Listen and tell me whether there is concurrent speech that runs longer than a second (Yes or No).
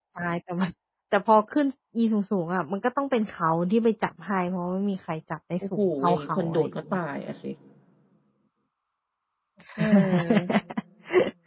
Yes